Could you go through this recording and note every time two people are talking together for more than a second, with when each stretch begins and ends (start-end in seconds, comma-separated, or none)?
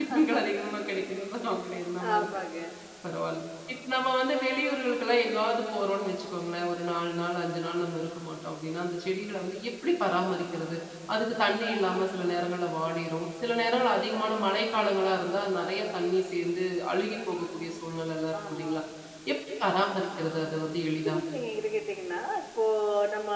none